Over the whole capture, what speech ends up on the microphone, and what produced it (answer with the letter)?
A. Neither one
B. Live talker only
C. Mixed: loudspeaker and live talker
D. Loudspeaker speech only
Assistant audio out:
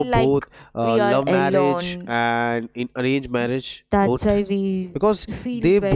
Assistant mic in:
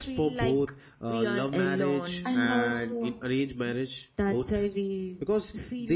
C